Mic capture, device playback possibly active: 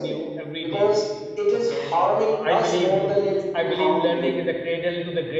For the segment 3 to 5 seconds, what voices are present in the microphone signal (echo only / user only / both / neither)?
both